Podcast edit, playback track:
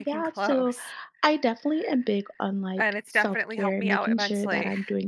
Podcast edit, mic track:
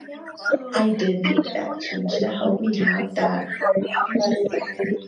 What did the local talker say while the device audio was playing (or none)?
I did make that change to help me have that